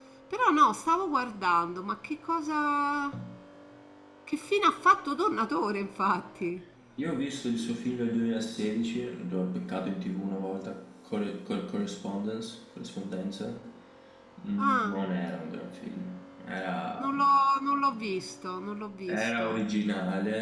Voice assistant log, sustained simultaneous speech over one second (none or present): none